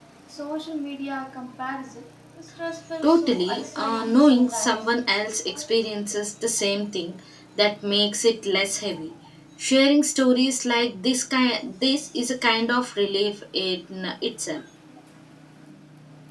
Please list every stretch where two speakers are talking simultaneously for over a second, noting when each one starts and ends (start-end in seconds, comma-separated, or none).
3.0-4.9